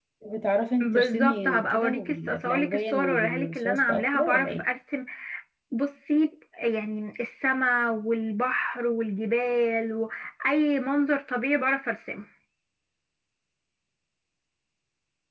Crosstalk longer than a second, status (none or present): present